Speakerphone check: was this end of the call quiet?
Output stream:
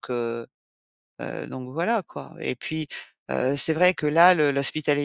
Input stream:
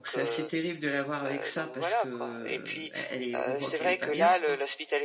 No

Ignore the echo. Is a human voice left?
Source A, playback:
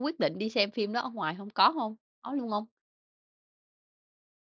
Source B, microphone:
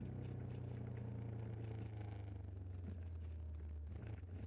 No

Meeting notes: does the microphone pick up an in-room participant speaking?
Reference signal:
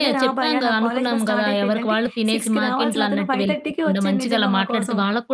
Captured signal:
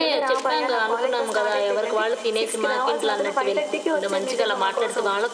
No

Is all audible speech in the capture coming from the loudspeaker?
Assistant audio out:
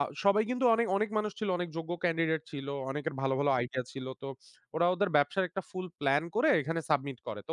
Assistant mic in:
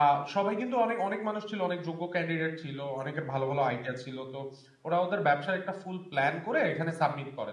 Yes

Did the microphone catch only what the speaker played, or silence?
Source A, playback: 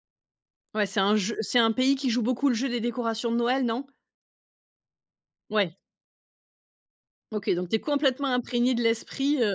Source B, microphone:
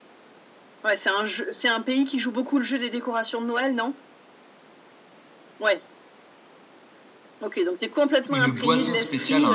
No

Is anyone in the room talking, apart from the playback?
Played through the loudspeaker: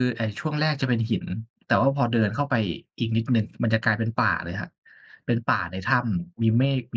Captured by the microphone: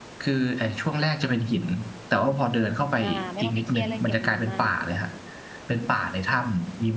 Yes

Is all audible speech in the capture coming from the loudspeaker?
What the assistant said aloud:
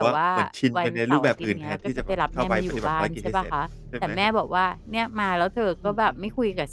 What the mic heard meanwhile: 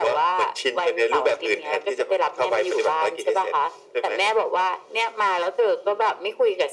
Yes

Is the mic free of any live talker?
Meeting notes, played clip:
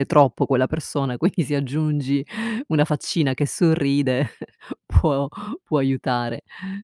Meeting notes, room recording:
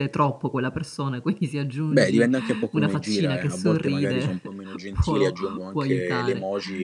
No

